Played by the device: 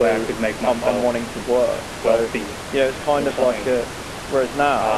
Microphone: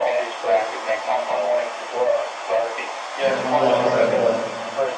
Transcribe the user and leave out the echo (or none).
yeah, li- like I said, like